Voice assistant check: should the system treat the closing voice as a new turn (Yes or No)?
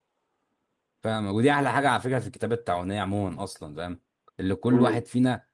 No